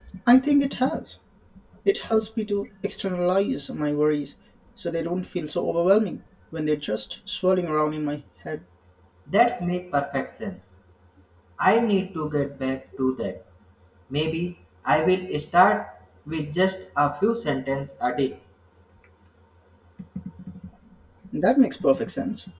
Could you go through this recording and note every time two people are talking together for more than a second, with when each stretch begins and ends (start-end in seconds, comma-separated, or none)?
none